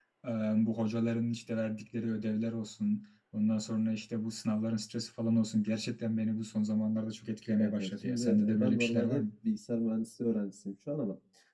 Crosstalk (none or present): present